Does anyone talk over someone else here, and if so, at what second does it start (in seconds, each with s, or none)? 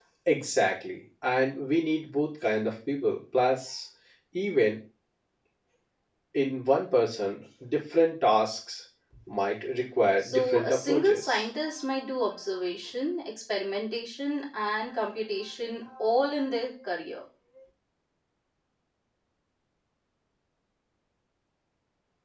10.2 s